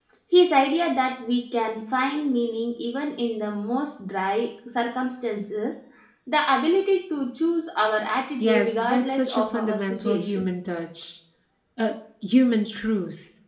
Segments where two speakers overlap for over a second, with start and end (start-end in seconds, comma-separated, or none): 8.4-10.4